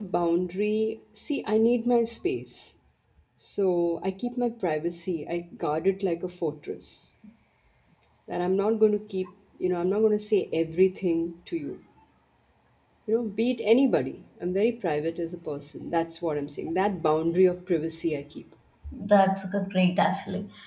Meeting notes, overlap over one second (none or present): none